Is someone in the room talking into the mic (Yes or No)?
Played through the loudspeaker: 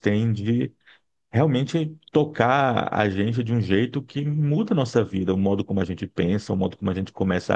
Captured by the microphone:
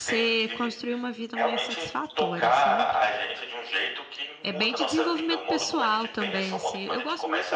Yes